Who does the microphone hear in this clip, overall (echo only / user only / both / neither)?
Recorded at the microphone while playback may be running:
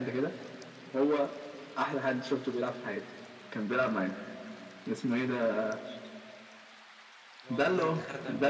both